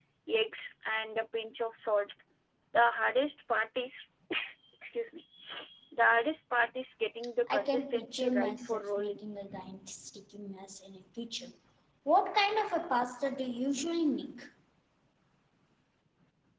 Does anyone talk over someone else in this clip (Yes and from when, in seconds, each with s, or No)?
Yes, from 7.5 s